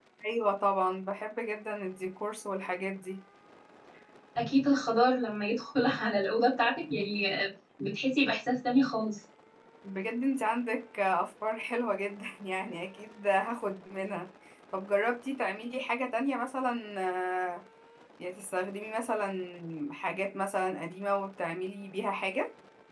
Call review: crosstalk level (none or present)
none